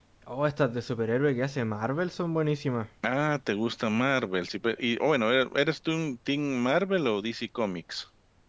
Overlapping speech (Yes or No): No